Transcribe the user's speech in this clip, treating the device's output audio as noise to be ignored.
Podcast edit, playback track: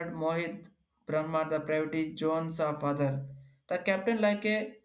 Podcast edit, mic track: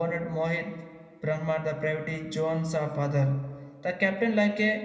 none

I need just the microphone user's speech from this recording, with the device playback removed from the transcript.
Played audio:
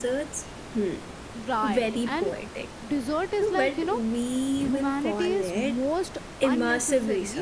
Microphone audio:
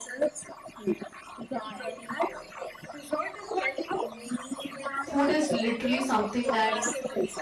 food is literally something that

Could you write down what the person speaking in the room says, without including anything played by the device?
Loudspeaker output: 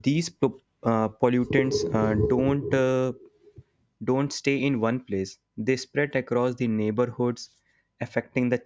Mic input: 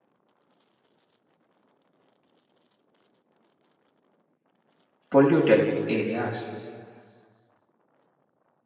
polluted areas.

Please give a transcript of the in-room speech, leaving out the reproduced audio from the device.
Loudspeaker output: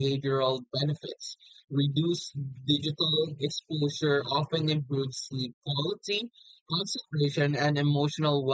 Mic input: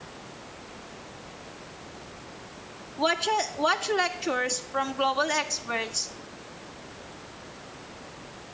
watch, uh, watch lectures from global experts,

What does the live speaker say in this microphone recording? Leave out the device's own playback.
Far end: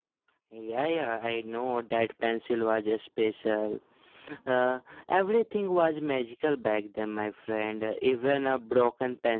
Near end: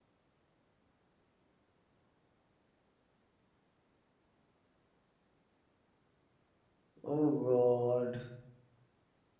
Oh God.

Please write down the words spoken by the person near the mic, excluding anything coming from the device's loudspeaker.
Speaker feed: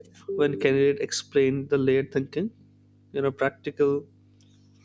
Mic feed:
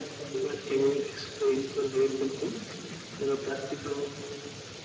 none

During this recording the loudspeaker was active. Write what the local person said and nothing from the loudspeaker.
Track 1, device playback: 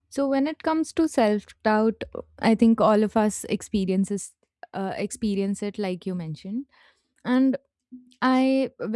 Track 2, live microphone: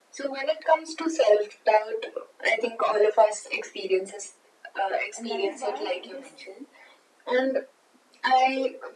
and that is why it is

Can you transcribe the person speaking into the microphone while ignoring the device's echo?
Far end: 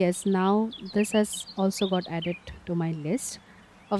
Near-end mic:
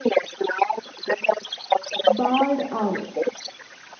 barred owl

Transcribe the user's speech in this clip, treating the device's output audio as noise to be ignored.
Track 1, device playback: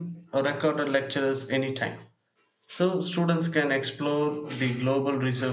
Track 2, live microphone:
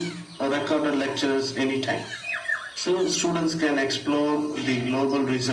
none

